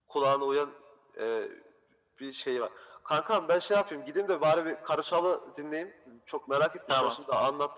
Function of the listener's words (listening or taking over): listening